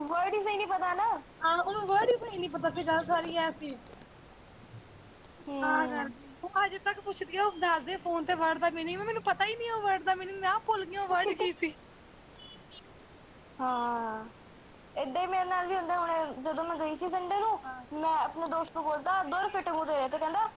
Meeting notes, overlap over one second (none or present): none